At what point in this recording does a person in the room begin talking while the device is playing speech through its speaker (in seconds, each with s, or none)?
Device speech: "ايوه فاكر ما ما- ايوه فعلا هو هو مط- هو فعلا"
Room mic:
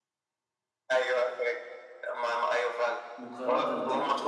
3.2 s